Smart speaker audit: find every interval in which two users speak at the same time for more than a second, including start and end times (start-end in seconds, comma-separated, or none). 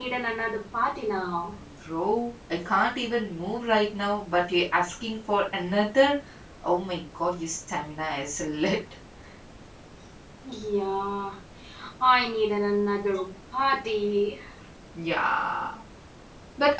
none